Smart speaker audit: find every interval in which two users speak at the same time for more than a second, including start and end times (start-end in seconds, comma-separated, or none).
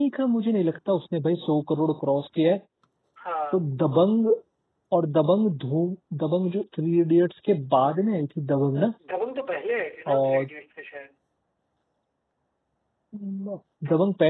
none